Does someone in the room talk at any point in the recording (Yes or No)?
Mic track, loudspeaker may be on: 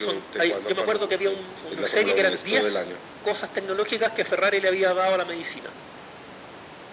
No